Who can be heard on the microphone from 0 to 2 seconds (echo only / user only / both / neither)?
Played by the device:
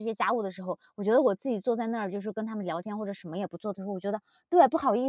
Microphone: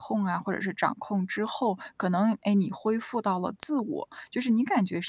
user only